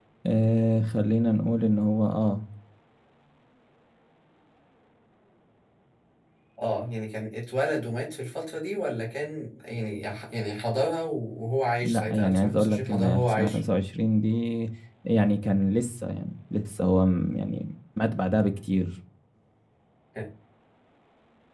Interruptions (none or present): present